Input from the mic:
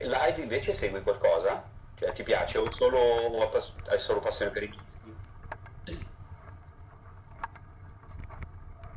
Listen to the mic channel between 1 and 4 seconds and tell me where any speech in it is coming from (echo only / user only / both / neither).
echo only